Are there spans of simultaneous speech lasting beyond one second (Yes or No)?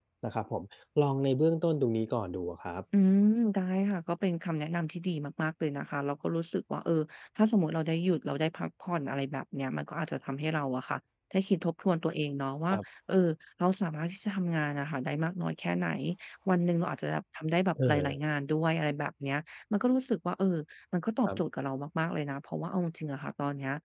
No